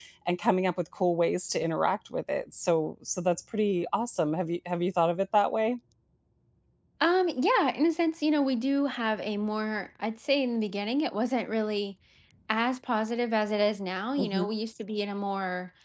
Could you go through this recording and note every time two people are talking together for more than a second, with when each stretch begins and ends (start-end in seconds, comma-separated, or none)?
none